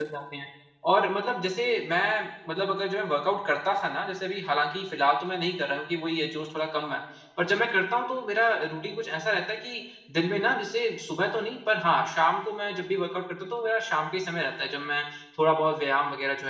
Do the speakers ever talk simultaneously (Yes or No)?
No